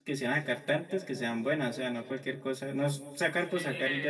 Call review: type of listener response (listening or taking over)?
taking over